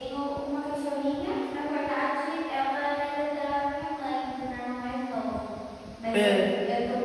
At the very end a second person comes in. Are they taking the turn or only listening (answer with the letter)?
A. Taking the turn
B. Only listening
B